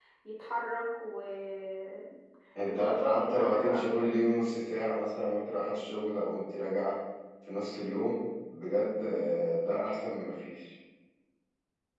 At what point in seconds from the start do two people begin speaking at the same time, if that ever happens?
2.5 s

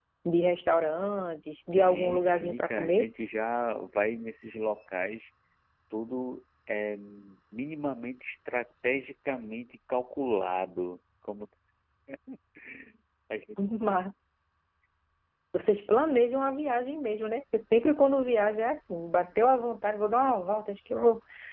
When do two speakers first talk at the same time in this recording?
1.8 s

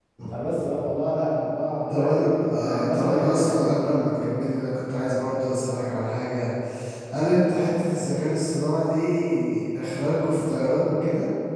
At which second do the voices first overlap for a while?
1.8 s

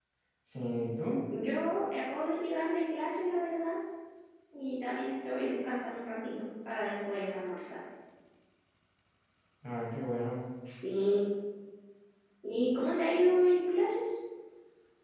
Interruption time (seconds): none

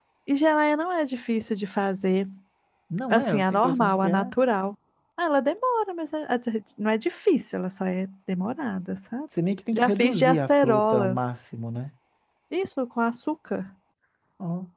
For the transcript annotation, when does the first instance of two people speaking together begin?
3.1 s

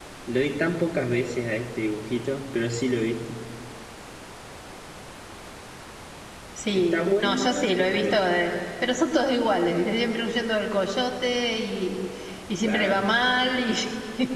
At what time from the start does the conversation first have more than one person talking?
6.7 s

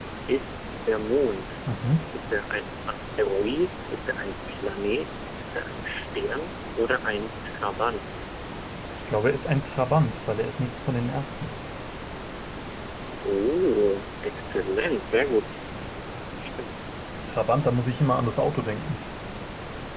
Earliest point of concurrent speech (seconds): none

